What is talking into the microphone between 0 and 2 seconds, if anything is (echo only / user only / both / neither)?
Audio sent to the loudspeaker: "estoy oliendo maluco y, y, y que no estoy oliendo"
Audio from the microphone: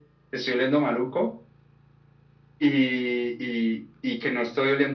echo only